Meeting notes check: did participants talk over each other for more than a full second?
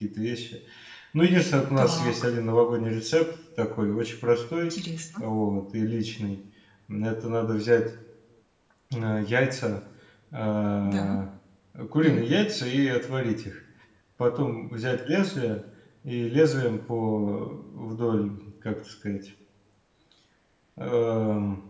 No

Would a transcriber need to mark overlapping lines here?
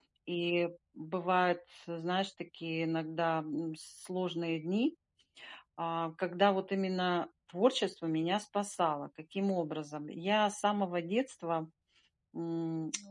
No

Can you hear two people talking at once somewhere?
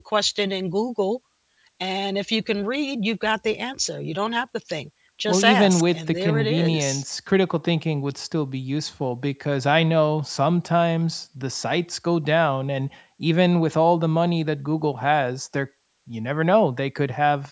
Yes, from 5.3 s

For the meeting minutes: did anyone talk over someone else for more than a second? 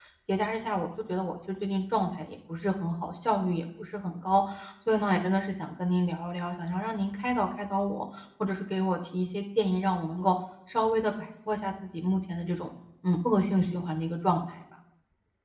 No

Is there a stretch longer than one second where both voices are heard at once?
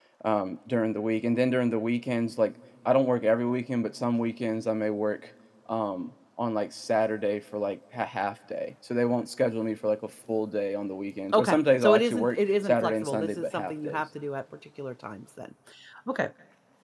Yes, from 11.3 s

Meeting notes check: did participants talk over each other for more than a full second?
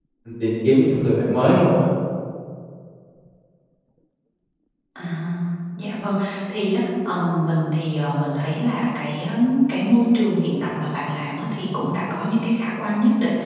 No

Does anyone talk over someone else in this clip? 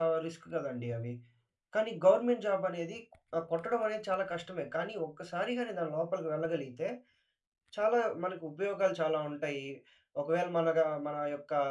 No

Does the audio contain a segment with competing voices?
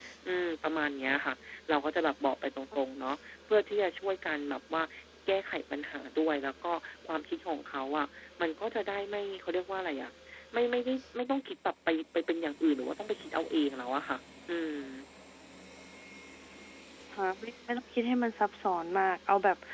No

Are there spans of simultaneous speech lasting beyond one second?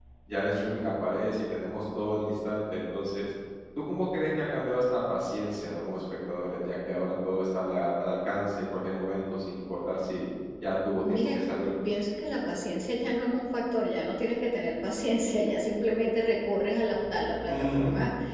No

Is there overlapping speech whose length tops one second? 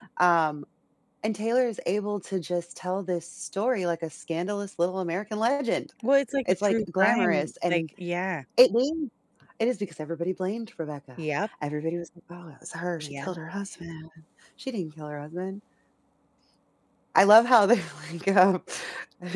Yes, from 6.4 s

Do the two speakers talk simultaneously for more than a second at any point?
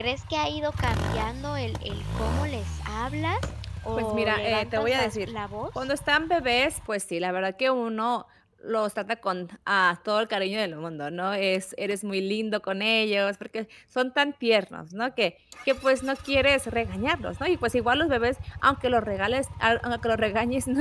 Yes, from 4.0 s

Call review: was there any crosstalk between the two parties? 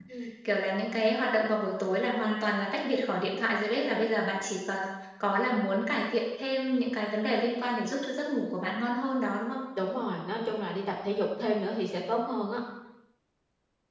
No

